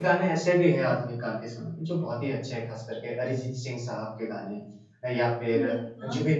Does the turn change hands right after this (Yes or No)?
No